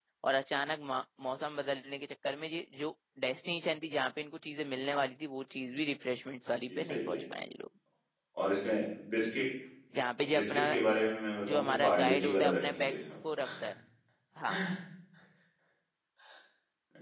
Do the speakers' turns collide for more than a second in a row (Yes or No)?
Yes